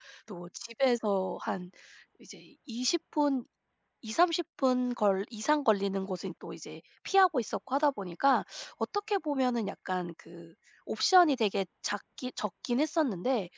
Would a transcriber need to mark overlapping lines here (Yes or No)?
No